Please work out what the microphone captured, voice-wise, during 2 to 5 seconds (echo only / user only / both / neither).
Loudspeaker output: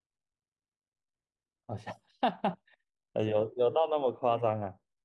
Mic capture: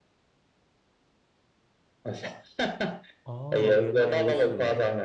both